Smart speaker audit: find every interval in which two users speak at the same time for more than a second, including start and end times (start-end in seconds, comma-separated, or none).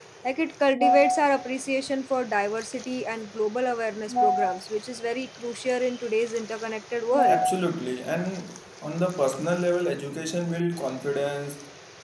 none